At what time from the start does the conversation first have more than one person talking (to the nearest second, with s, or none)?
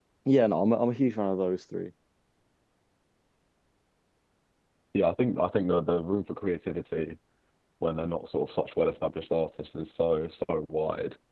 none